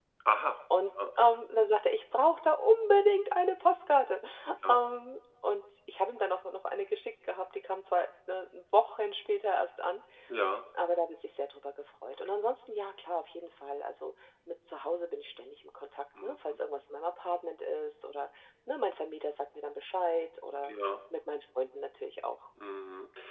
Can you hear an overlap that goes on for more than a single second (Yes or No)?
No